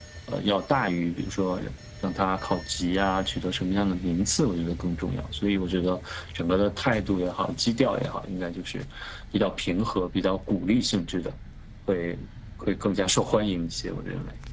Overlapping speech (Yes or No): No